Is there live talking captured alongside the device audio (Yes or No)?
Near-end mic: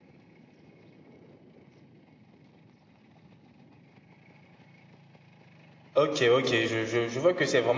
Yes